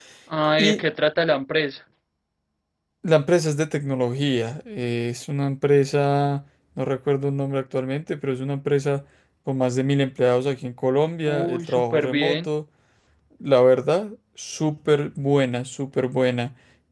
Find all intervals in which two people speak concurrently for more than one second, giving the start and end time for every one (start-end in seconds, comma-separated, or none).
11.3-12.5